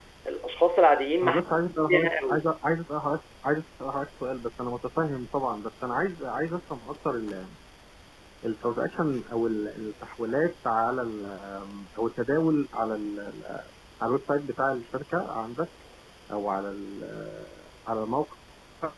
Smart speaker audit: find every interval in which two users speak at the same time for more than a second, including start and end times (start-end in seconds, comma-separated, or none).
1.2-2.5